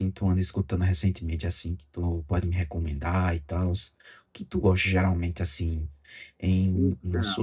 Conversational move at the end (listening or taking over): listening